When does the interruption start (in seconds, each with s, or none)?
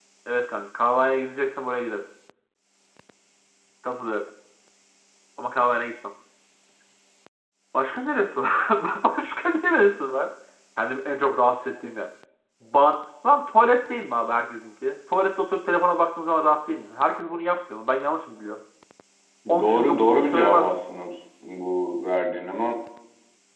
19.6 s